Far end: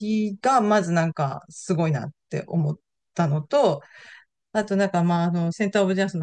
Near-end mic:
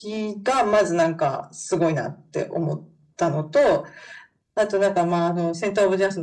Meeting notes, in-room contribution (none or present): none